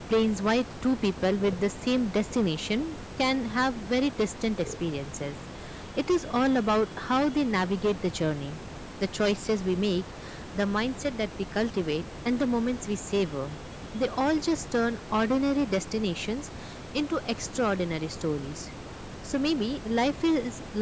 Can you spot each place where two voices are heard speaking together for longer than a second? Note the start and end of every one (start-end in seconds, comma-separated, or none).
none